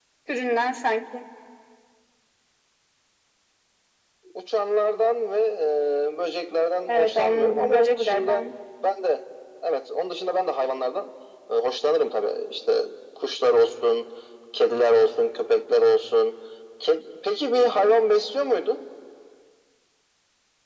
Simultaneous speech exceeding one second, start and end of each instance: 6.9-8.4

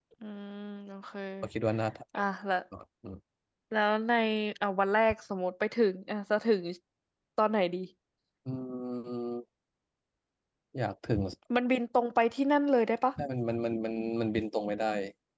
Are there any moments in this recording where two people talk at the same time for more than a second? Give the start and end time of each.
none

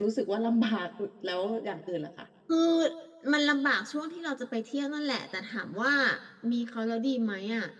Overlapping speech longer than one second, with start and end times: none

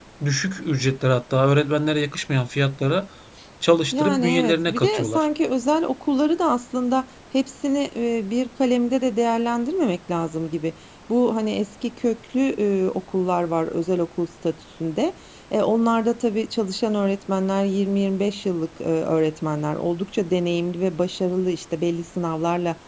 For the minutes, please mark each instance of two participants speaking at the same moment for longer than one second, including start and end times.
3.9-5.3

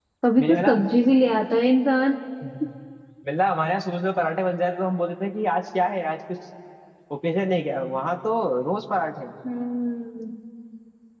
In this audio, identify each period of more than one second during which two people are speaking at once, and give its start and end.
none

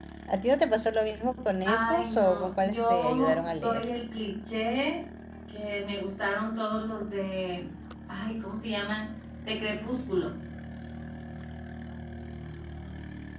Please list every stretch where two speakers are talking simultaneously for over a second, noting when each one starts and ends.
1.6-3.9

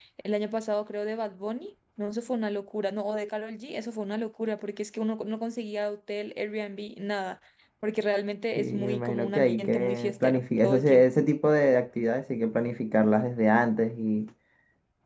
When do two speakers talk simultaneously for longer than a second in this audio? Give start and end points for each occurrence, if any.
8.6-11.1

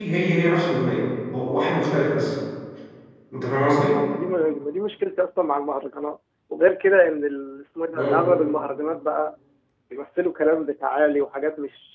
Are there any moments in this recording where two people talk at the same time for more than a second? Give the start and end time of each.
none

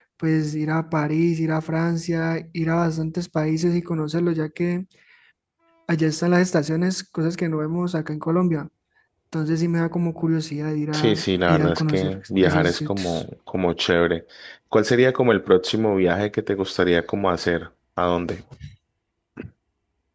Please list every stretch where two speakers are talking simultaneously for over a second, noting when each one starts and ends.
10.9-13.2

